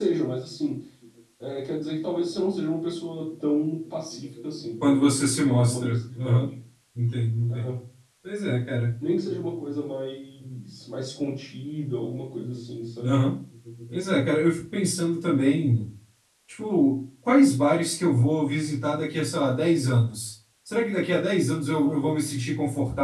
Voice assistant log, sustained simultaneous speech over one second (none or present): present